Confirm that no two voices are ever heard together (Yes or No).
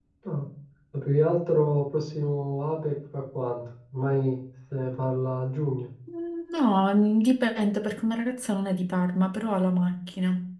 Yes